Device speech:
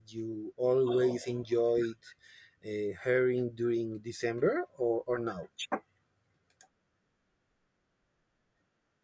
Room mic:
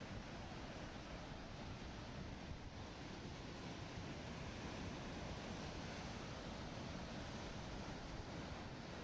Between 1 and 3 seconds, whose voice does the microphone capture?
neither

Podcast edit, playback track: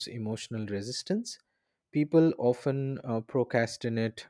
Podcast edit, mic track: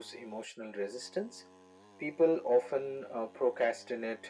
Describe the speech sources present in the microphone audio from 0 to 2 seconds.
echo only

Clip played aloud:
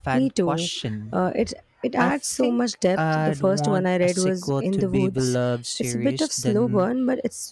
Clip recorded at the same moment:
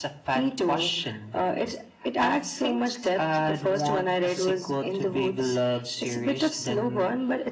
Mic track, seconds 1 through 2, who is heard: echo only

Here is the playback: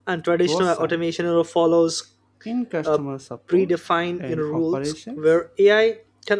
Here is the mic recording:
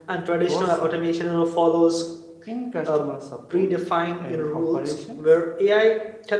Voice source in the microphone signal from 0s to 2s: echo only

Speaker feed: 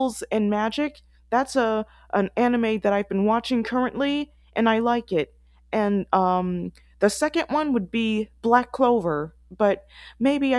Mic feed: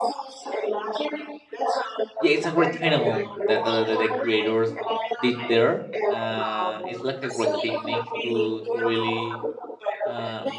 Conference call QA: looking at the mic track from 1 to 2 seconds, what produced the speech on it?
echo only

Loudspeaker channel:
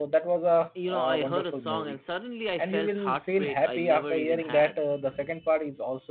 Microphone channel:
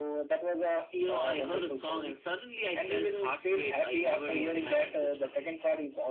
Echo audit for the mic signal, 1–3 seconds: echo only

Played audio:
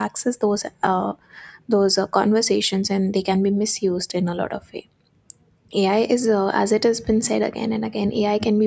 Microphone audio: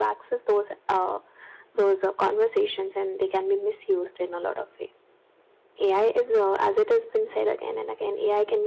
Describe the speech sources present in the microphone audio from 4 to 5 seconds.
echo only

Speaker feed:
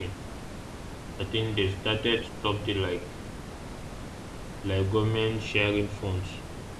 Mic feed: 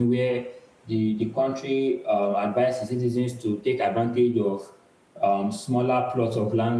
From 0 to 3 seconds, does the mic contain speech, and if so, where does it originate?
user only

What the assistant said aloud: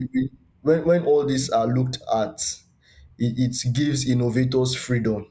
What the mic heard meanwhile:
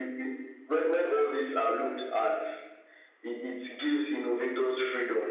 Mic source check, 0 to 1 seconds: echo only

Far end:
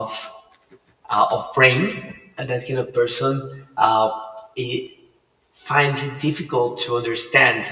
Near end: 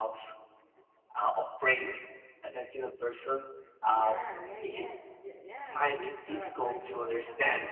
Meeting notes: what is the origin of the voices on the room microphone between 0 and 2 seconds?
echo only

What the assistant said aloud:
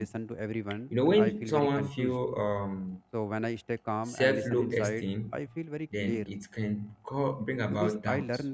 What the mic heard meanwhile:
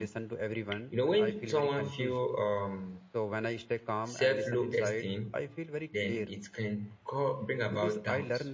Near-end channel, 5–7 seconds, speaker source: echo only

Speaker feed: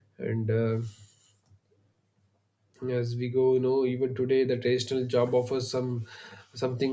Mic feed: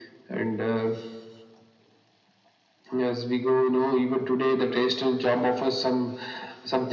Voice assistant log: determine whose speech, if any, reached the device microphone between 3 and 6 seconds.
echo only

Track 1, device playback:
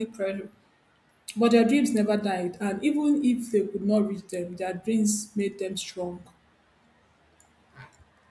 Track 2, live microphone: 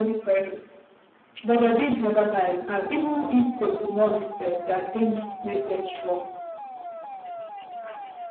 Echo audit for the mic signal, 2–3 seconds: echo only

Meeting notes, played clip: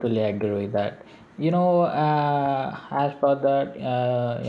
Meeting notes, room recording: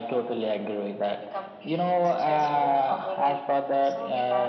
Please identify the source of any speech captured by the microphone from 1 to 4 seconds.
both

